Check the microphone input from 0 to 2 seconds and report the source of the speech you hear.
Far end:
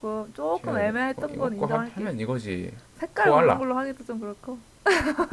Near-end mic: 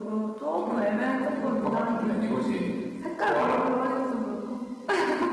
echo only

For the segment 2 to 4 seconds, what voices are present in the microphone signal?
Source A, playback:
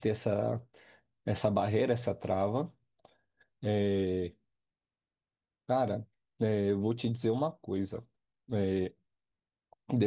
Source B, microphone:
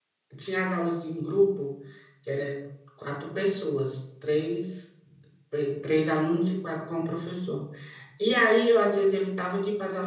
user only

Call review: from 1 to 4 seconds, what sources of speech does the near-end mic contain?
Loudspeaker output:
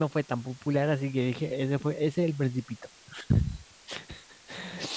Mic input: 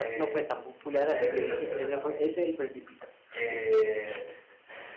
both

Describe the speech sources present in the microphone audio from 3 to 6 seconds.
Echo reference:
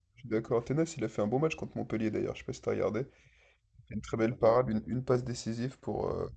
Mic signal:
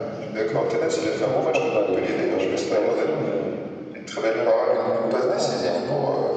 both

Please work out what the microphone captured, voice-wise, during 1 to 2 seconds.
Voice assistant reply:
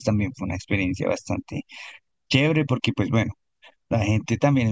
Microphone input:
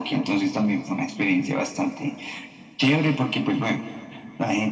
echo only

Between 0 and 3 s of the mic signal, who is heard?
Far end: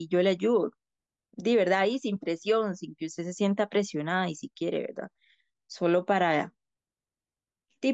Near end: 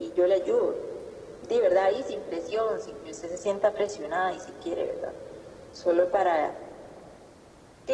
echo only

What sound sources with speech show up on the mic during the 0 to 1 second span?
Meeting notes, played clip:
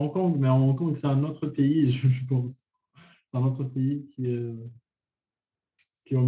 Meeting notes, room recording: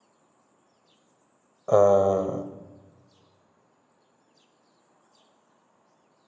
neither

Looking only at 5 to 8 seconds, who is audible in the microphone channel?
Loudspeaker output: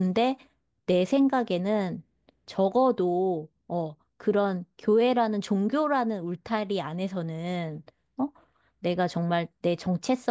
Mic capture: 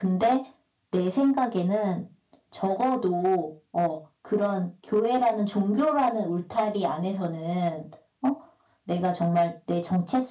echo only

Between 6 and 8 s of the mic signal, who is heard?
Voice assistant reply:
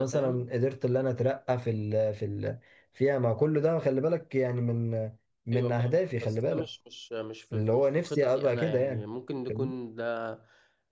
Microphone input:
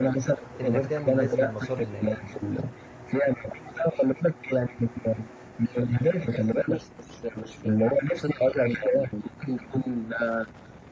echo only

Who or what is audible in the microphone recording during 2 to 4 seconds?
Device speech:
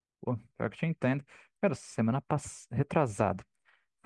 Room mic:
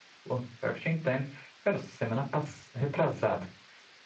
echo only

